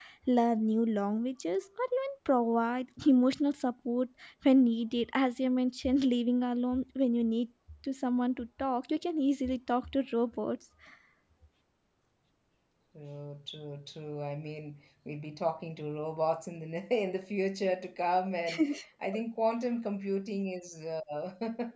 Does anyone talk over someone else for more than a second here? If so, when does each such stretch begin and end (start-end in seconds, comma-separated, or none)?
none